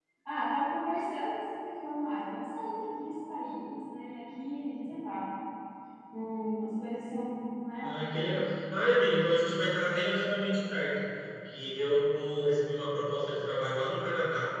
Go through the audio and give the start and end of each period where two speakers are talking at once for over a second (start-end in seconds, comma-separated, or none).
none